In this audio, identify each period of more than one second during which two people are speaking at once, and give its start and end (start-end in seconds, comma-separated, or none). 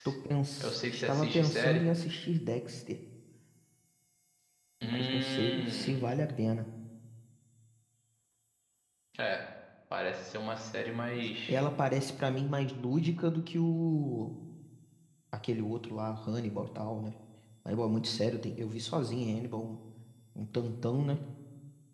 0.6-1.8, 4.9-6.2